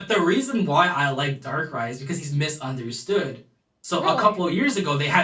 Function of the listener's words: listening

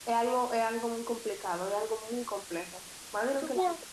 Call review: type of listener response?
taking over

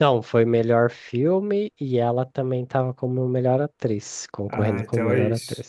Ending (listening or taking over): taking over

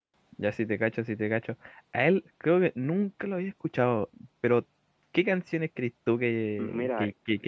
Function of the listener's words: listening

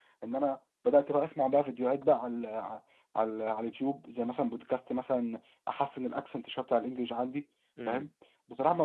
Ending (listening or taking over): listening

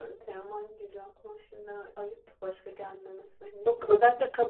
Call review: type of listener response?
taking over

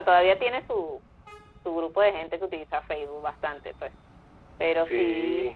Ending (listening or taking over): listening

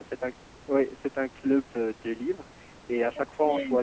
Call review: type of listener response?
listening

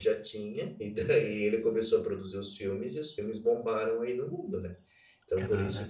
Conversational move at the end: listening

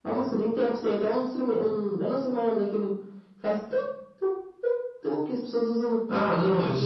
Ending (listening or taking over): taking over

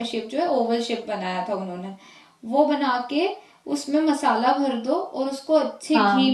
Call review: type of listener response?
listening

